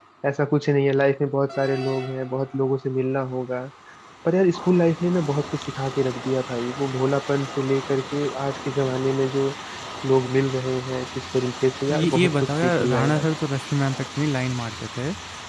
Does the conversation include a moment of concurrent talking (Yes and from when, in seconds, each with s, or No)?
Yes, from 11.9 s